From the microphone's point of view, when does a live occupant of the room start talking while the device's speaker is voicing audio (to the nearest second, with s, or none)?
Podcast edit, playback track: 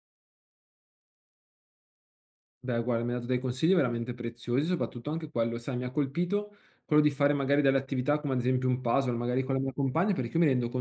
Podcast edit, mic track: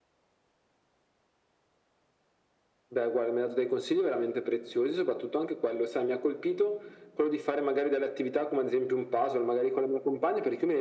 none